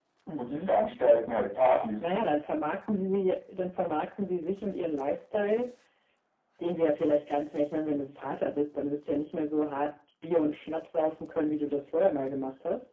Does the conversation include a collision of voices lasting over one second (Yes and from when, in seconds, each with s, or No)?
No